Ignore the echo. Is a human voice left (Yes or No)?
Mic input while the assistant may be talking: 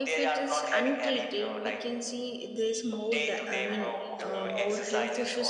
Yes